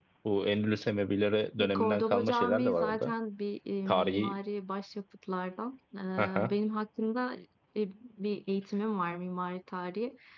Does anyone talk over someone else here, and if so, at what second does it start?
1.6 s

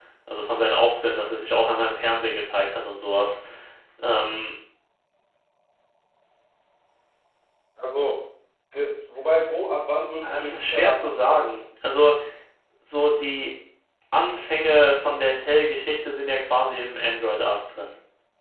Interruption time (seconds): 10.2 s

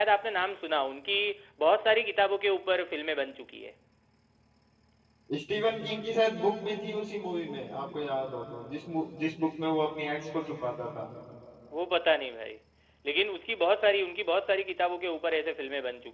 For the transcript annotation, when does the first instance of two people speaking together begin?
none

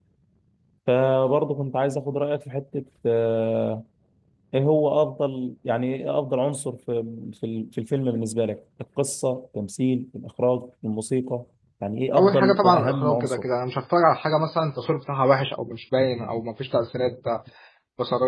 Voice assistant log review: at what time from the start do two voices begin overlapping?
12.2 s

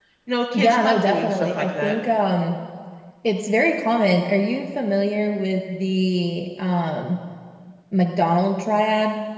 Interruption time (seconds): 0.5 s

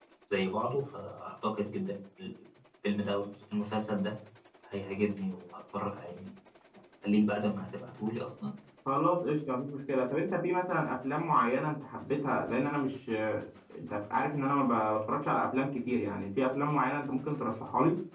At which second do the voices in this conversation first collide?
none

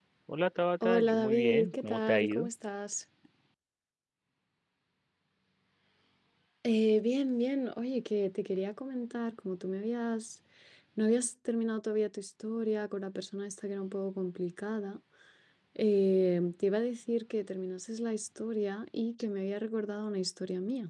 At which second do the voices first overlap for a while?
0.8 s

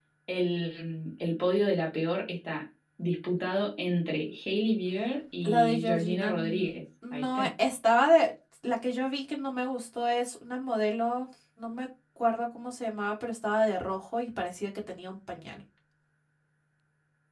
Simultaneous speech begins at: 5.4 s

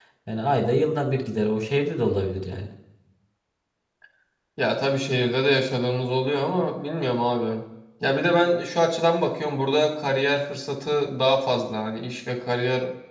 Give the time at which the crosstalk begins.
none

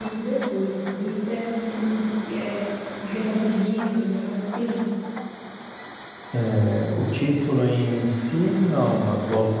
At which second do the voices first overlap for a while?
none

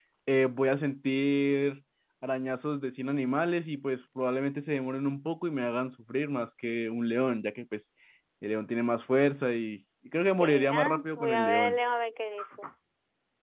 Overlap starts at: 10.4 s

